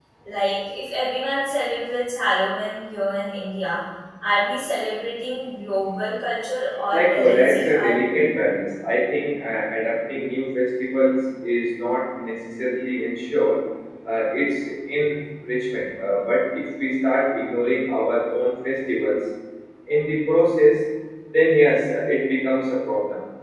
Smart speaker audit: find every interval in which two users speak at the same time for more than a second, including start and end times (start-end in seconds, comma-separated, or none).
6.9-8.4